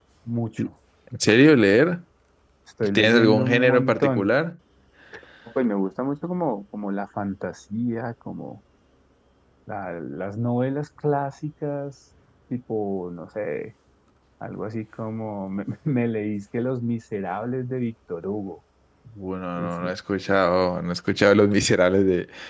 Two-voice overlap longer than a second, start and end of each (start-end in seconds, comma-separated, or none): 3.0-4.3